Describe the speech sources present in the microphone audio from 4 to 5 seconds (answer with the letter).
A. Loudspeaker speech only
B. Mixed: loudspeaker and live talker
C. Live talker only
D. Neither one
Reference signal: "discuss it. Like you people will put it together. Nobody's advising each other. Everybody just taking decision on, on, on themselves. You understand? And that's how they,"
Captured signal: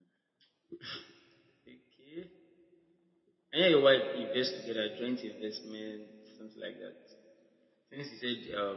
C